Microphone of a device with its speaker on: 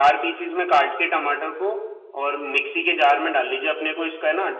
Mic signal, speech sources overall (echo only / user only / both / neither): echo only